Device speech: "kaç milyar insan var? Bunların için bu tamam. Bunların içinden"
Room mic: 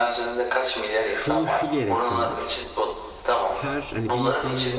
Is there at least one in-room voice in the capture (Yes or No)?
Yes